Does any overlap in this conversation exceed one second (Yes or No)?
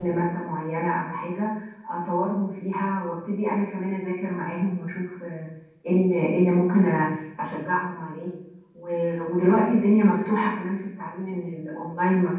No